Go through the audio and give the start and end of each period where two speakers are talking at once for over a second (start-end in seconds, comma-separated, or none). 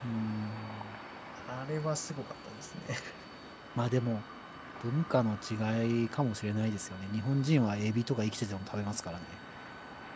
none